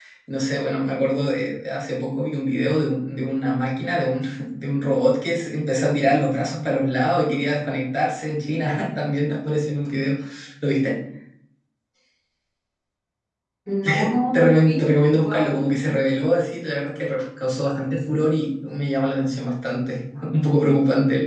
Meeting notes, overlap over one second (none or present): present